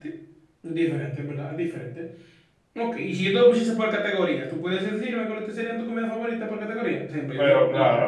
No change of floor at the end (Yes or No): Yes